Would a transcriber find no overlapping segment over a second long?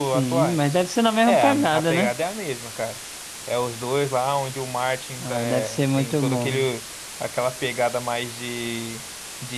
No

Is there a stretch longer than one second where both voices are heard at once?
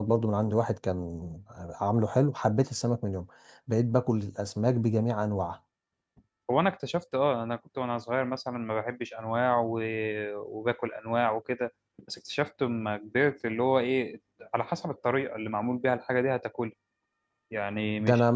No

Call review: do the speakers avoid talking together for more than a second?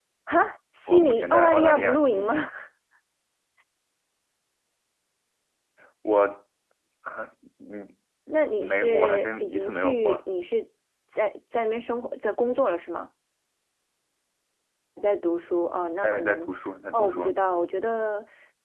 No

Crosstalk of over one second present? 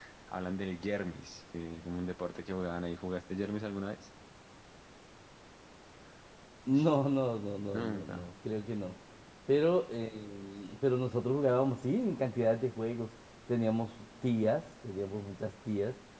No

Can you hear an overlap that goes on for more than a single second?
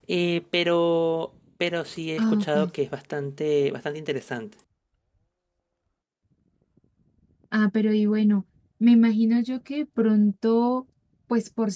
No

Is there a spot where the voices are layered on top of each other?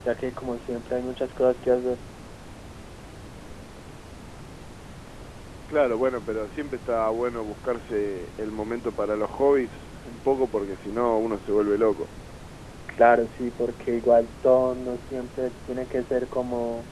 No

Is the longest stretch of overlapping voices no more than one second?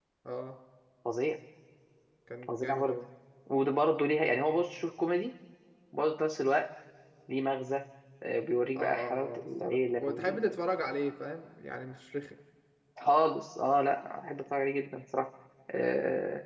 No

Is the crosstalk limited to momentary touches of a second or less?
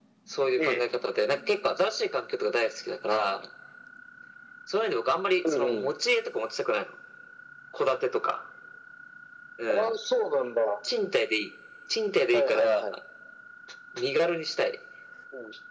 Yes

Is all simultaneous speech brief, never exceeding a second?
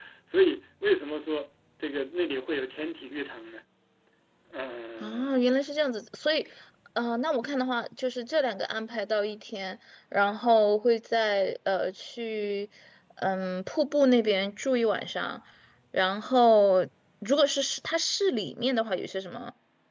Yes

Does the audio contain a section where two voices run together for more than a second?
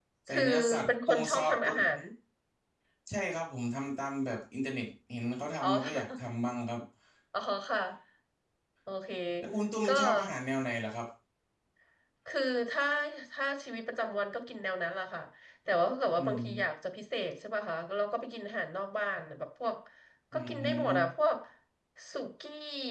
Yes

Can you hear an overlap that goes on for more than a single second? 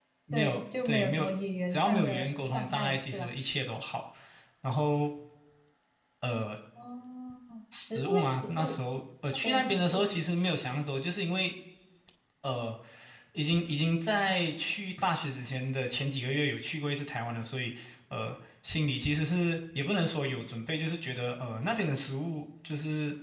Yes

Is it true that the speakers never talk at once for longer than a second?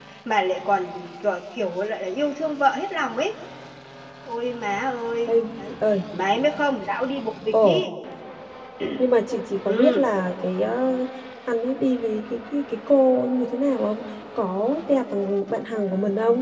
Yes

